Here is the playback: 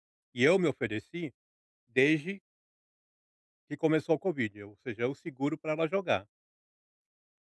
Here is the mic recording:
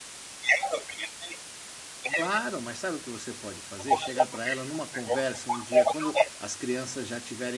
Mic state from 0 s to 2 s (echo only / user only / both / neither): echo only